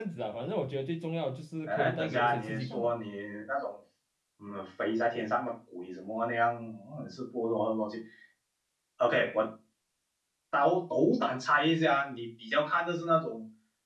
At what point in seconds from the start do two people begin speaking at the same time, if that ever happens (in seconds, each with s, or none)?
1.7 s